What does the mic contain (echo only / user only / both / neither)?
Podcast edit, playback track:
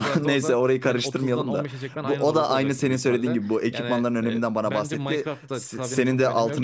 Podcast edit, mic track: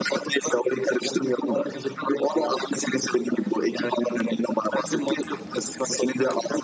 echo only